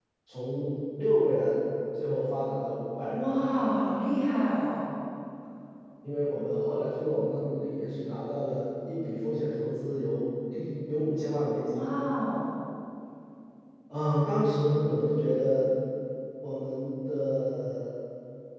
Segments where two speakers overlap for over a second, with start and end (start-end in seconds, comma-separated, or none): none